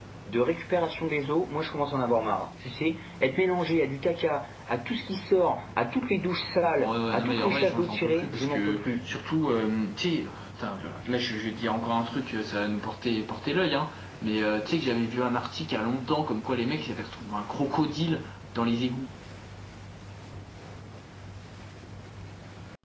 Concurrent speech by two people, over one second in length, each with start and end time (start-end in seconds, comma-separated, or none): 6.8-9.0